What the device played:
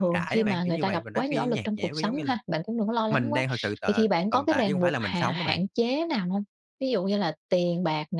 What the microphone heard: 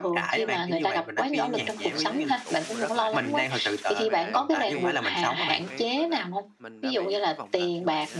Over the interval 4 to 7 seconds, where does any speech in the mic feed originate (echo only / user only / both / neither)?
both